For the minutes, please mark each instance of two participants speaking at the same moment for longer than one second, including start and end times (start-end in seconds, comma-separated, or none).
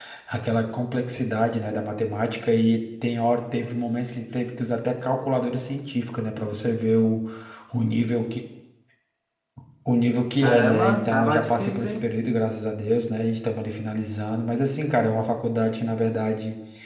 10.4-11.9